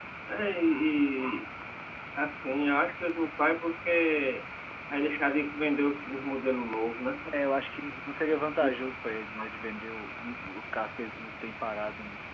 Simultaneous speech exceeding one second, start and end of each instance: none

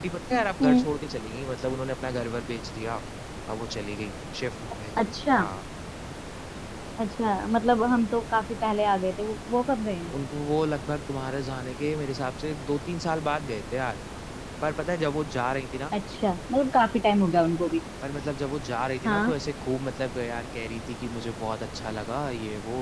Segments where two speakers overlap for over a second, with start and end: none

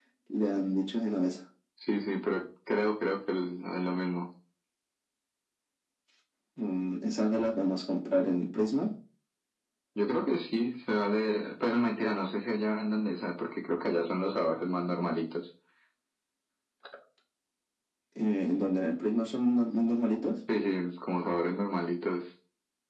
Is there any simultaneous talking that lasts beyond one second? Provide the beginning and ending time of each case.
none

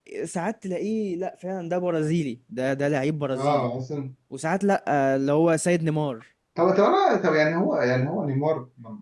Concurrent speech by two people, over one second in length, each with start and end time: none

